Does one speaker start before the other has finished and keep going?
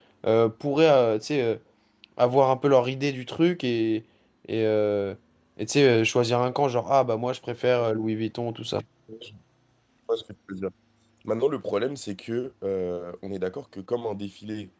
No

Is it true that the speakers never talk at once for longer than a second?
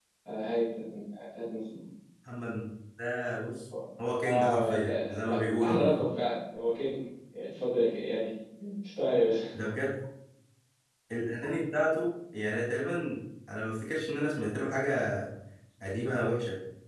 No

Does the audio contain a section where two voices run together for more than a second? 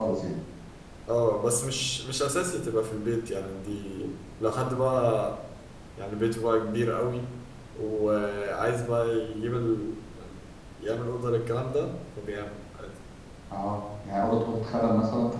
No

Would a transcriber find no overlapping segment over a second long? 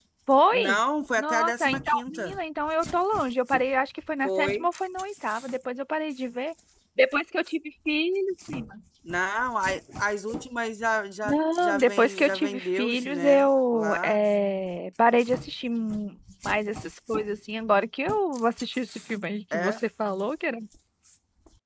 No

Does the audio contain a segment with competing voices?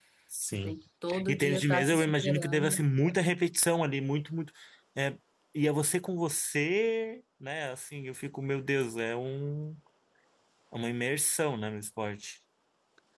Yes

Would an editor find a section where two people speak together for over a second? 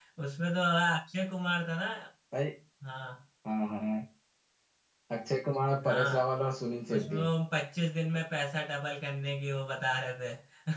No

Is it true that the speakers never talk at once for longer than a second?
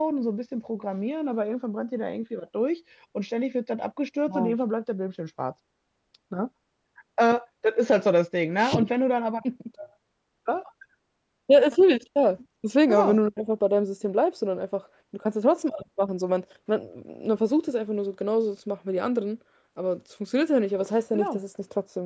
Yes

